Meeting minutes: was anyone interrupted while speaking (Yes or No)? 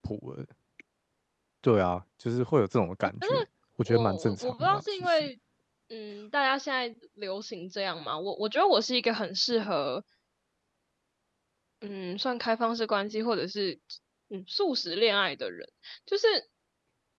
Yes